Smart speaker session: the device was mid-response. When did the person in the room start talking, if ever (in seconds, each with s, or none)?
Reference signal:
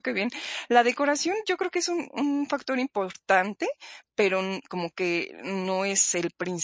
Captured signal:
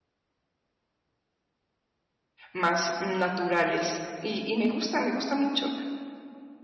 2.5 s